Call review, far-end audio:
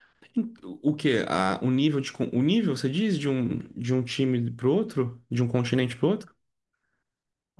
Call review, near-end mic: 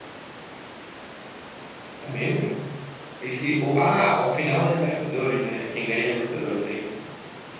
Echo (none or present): none